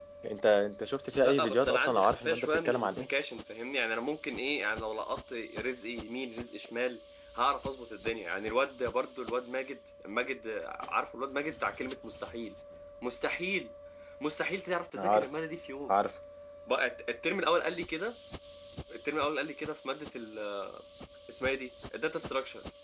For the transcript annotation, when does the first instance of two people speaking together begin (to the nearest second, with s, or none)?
1 s